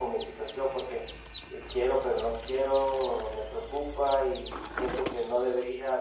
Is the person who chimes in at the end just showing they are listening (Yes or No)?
Yes